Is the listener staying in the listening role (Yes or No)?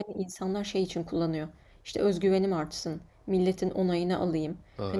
Yes